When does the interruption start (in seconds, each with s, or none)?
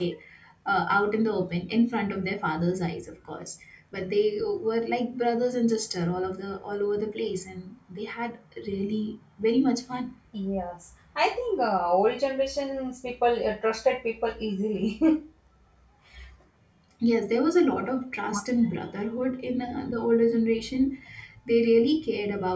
none